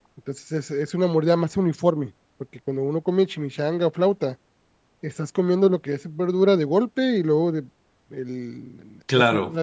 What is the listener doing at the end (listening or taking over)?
listening